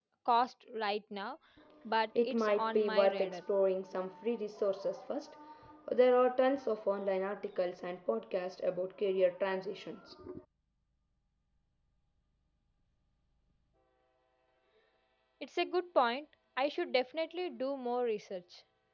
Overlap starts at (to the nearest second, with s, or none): 2 s